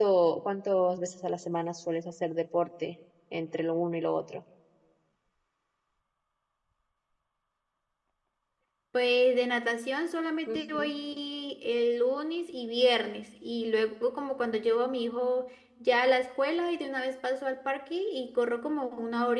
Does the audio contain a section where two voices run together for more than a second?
No

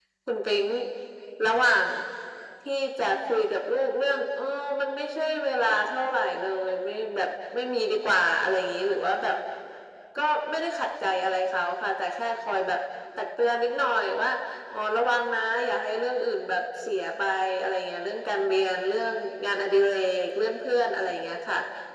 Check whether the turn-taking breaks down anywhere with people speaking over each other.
No

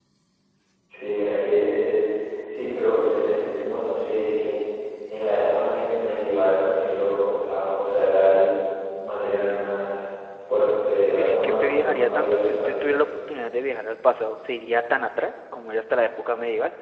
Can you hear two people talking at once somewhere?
Yes, from 11.2 s

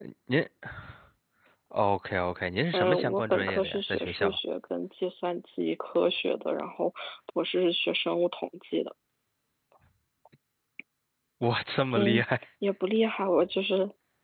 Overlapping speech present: Yes, from 2.7 s

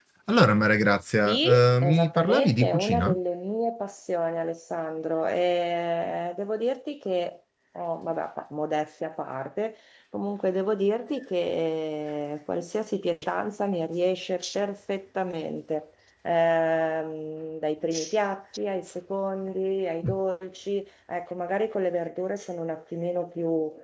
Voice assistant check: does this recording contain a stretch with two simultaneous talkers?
Yes, from 1.3 s

